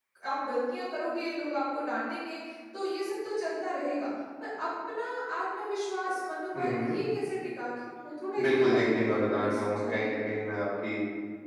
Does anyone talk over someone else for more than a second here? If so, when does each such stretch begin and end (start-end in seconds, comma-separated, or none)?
8.4-10.1